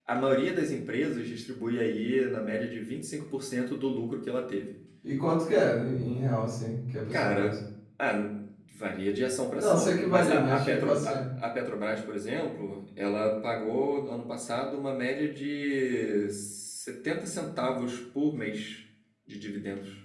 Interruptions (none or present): present